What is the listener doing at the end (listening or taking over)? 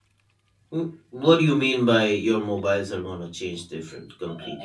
taking over